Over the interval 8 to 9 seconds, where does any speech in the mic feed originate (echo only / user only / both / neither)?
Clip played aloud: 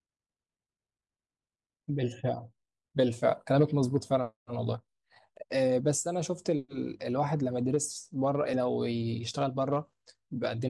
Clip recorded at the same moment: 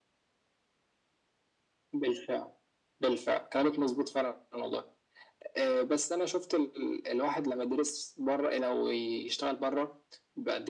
echo only